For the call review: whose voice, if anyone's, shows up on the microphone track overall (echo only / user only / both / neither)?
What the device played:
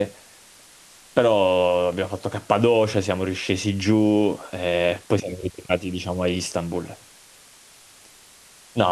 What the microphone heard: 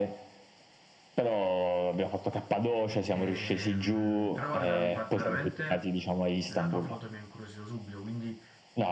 both